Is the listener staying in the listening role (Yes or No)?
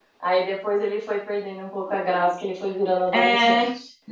No